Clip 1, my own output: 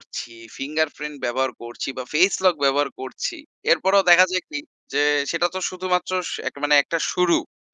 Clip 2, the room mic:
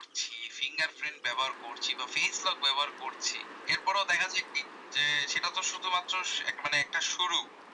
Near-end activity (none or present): none